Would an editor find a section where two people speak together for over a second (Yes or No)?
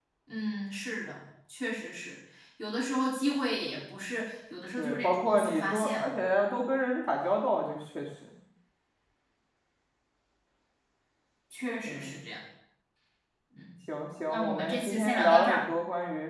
Yes